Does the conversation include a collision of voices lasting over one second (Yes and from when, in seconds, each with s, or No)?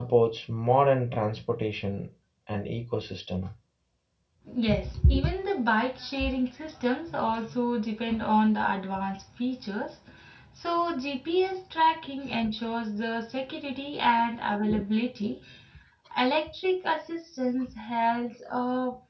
No